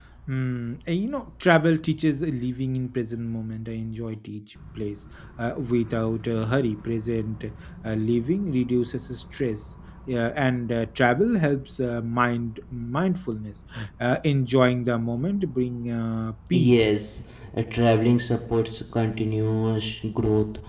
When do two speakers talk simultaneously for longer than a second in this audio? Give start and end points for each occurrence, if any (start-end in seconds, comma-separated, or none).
none